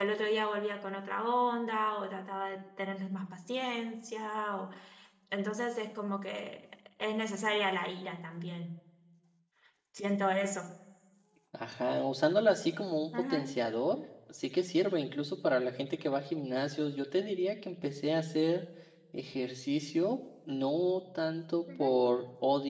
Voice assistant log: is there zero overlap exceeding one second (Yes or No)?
Yes